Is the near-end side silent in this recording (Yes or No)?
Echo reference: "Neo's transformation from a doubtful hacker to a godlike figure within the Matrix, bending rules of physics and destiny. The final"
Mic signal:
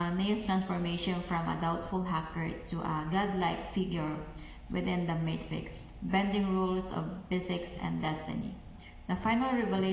Yes